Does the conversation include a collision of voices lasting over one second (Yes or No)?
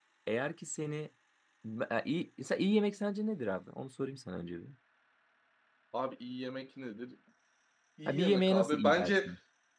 Yes